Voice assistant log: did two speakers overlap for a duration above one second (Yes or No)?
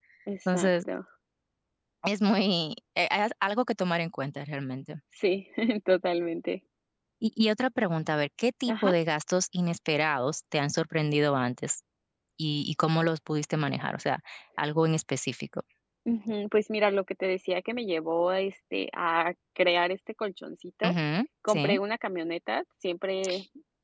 No